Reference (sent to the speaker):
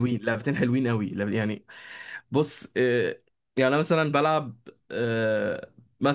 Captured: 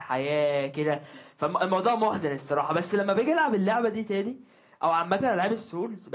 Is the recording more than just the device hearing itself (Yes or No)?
Yes